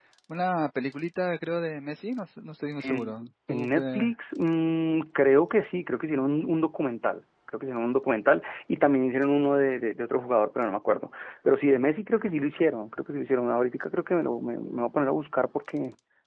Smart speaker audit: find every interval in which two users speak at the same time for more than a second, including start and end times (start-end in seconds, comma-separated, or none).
2.8-4.1